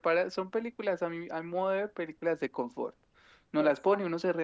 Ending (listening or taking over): listening